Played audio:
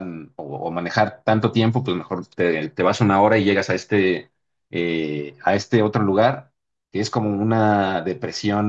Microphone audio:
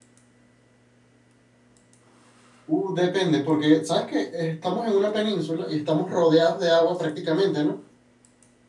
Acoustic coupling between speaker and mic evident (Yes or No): No